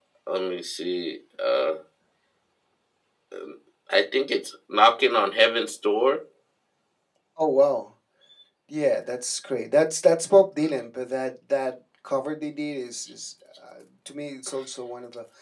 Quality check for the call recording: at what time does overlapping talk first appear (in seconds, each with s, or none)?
none